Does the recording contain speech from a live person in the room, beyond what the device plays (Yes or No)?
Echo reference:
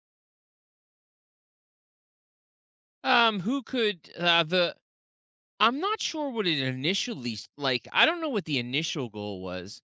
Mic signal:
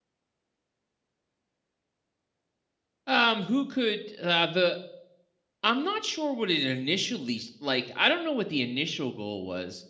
No